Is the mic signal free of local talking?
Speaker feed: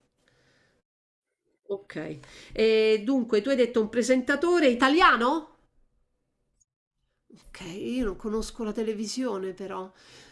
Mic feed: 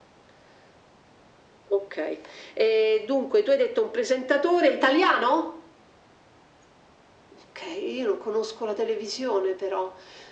Yes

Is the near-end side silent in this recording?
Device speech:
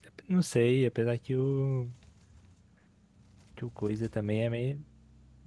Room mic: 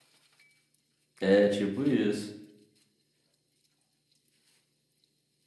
No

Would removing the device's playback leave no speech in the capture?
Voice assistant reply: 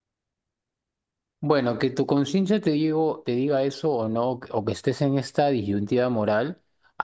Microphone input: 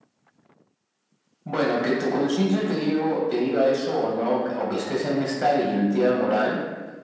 Yes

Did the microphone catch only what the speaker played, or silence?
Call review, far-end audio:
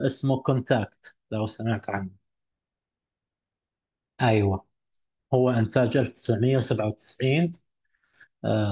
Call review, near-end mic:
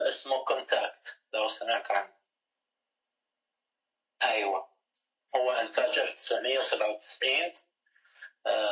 Yes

